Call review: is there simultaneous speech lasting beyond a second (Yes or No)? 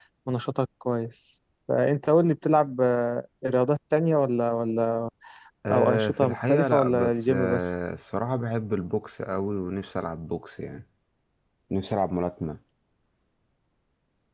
Yes